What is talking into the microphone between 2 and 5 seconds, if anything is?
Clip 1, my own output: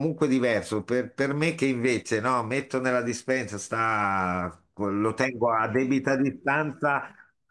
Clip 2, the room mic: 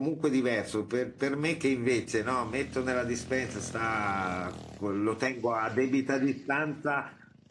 echo only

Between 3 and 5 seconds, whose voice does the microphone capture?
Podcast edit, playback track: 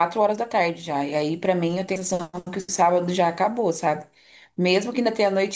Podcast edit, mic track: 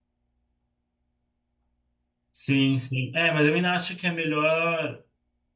user only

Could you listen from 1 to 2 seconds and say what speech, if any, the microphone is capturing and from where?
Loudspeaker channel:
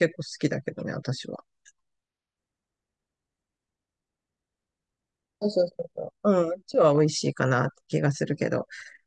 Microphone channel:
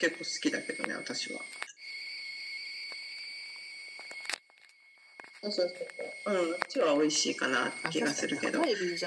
echo only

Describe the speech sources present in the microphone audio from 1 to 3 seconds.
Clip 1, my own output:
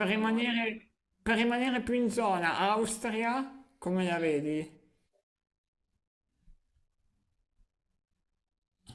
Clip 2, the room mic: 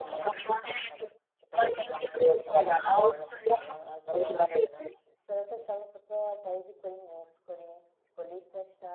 both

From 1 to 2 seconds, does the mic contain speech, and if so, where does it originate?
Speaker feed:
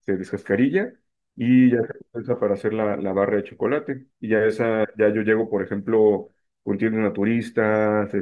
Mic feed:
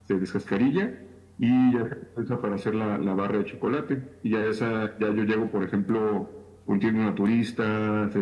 echo only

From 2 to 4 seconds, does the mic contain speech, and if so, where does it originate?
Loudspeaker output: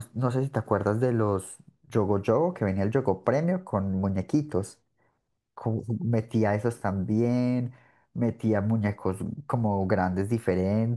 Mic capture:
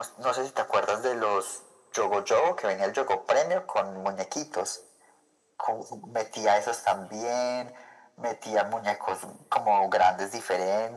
echo only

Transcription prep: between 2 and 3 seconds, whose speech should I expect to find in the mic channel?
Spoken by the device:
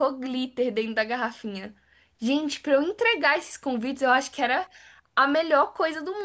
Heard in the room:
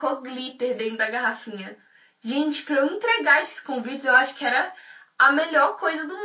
echo only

